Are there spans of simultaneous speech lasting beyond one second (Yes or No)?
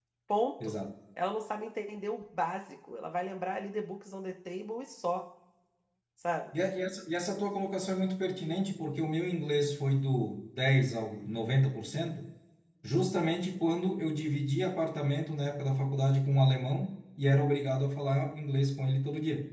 No